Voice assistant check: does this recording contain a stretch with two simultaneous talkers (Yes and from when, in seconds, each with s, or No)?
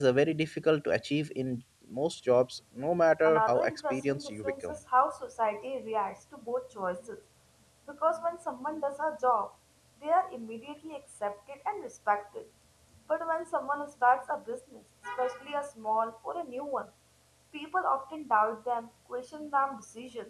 Yes, from 3.2 s